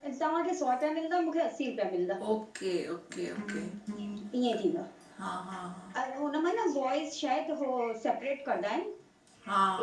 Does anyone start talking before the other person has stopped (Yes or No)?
No